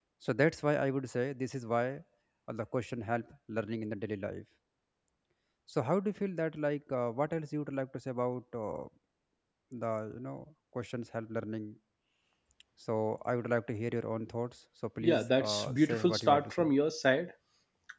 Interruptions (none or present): present